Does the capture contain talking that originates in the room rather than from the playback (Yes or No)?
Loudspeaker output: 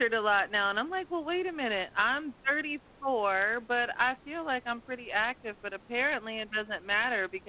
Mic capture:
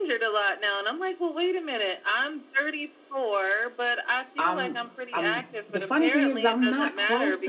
Yes